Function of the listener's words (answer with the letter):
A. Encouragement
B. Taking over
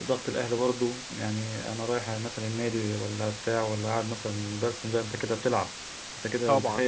B